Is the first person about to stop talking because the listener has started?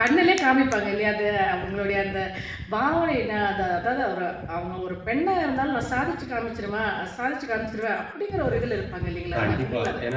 Yes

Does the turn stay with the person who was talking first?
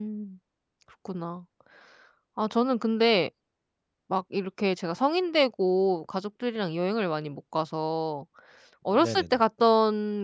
Yes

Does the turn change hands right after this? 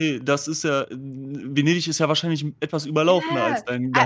Yes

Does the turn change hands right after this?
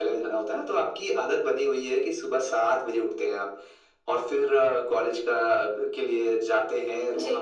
No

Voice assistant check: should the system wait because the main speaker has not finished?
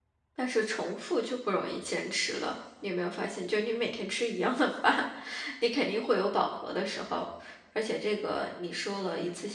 Yes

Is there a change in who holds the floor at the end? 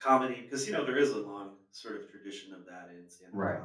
Yes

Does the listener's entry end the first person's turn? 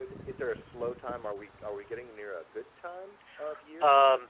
Yes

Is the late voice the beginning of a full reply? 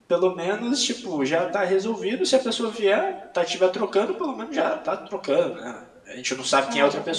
No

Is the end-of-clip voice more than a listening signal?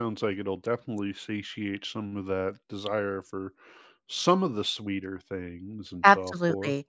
Yes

